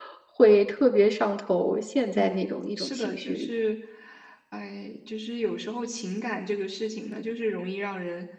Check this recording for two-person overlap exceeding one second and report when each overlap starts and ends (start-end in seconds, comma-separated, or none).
2.2-3.5